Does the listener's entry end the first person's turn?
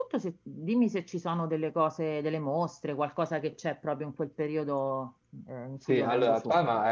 Yes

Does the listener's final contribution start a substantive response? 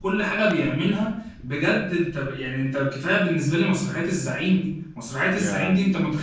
No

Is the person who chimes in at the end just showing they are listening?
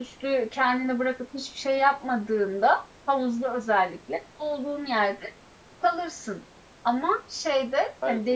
Yes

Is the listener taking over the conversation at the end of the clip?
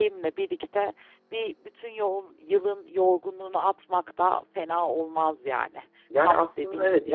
Yes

